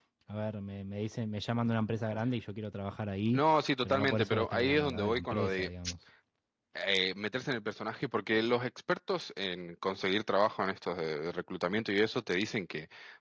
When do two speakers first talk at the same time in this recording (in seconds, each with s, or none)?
3.8 s